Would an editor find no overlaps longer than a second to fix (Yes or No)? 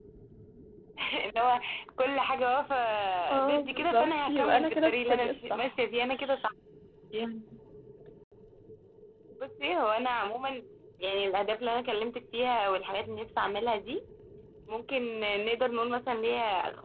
No